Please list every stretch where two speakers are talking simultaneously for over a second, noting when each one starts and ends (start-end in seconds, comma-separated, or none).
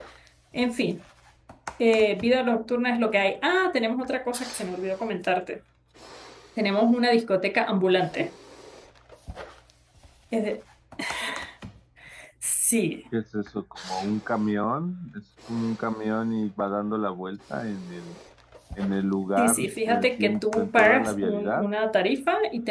19.4-21.7